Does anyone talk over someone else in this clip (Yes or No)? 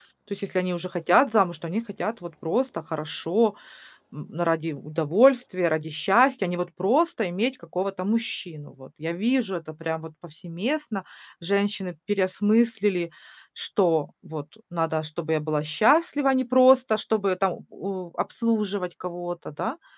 No